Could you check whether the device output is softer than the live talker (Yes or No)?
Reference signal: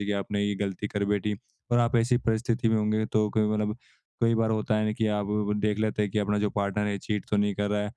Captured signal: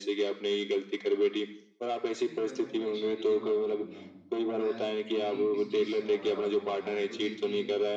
No